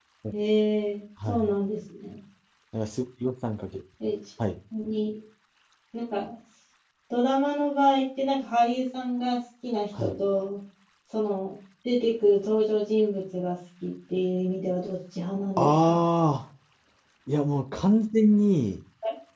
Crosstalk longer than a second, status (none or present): none